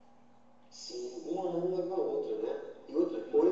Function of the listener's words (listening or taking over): listening